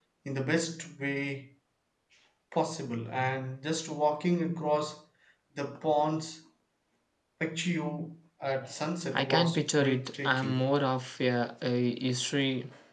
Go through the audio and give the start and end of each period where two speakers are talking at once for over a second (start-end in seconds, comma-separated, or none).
9.1-10.6